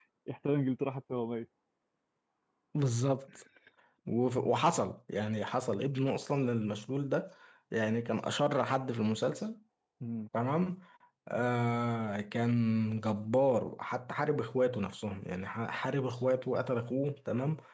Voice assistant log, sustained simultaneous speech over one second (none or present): none